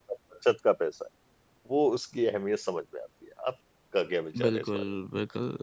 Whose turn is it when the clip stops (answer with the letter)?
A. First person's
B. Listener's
B